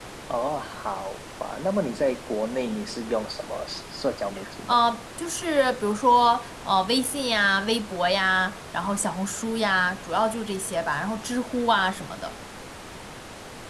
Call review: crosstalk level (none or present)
none